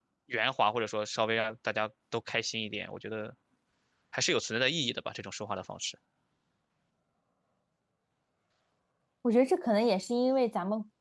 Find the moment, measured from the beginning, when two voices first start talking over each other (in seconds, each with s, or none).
none